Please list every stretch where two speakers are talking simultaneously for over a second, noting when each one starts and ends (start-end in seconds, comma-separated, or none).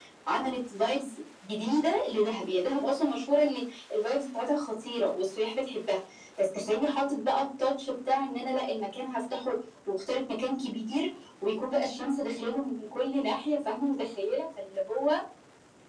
none